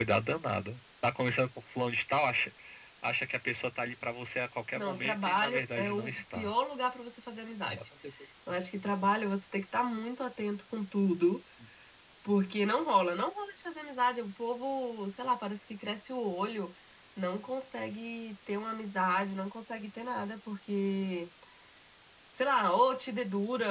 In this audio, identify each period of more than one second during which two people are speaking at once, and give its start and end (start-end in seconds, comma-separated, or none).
4.8-6.5